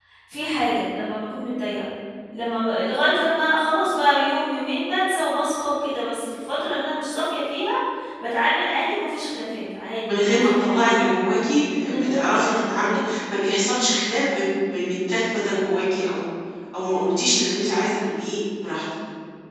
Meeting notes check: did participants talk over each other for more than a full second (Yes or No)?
Yes